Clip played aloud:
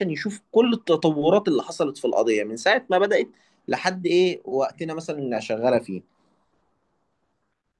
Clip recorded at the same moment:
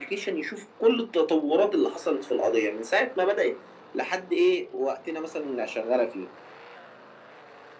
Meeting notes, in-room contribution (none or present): none